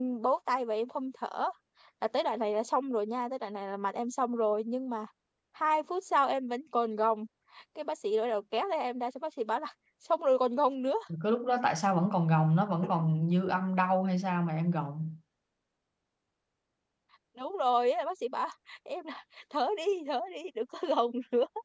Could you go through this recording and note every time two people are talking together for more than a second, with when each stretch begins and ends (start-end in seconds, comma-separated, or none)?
none